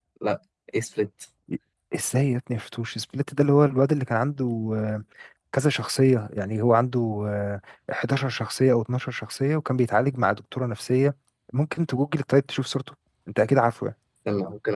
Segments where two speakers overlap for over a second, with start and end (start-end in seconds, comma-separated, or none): none